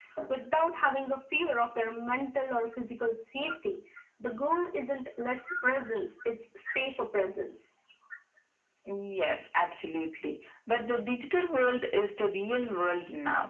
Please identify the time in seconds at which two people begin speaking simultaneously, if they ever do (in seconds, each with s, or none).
none